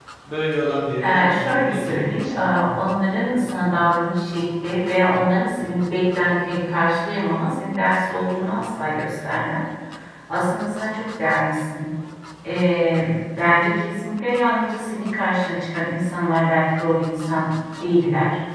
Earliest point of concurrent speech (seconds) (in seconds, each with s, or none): 1.0 s